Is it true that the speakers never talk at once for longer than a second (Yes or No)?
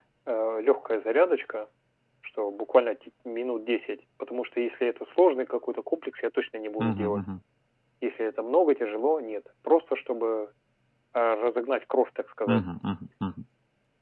Yes